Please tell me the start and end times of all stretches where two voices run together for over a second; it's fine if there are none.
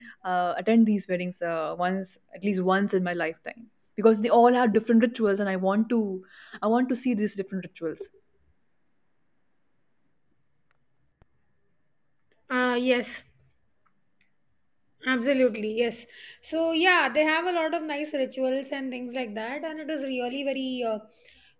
none

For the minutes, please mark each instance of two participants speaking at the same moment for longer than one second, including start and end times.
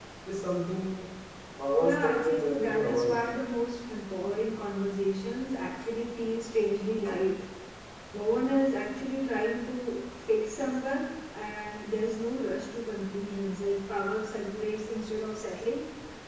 1.8-3.2

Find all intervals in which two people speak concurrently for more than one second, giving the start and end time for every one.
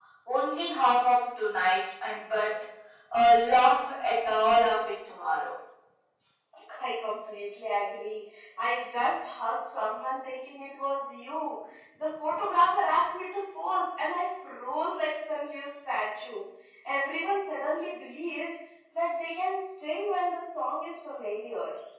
none

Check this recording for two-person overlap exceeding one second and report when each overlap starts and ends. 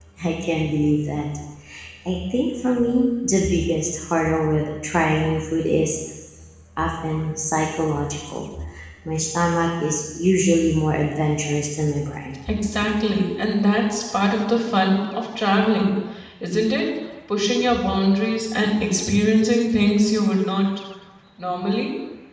none

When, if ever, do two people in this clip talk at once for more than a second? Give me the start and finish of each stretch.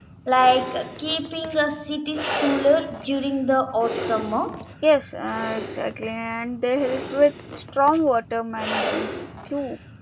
none

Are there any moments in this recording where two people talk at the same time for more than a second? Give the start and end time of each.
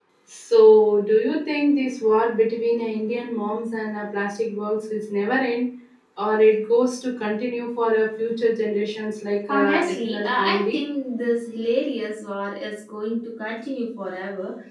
9.5-10.8

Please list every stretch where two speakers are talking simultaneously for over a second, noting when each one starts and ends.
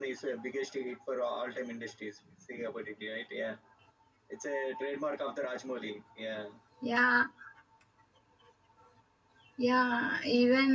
none

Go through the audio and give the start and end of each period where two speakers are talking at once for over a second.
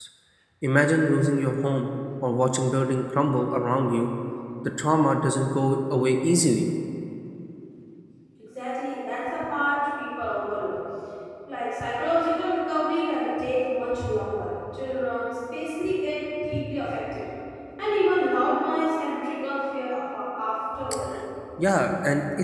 none

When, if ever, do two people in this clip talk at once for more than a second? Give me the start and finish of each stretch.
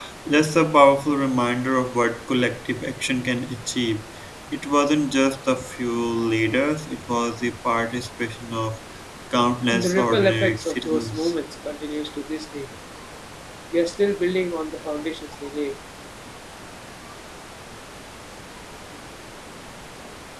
9.7-11.3

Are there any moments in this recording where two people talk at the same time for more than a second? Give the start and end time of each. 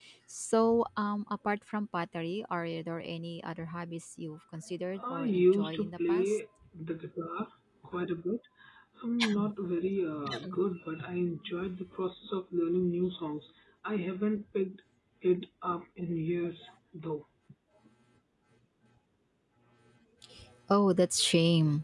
5.0-6.4

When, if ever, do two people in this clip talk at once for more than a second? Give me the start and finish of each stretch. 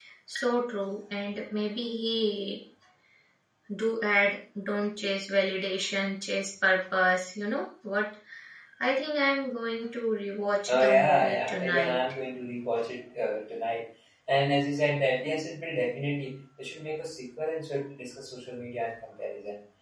10.7-12.0

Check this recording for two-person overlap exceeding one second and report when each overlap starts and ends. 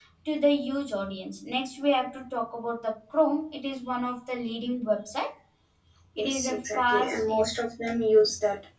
6.2-7.4

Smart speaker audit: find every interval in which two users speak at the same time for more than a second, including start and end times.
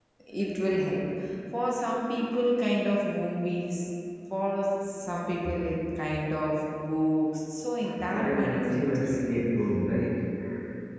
8.1-9.4

